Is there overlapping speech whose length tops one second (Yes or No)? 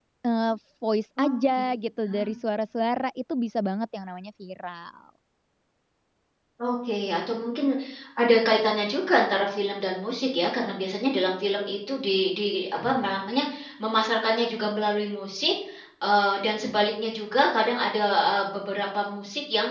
No